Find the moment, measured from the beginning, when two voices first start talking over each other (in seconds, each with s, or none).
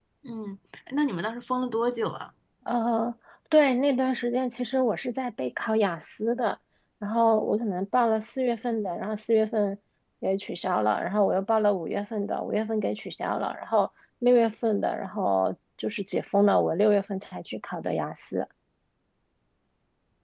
none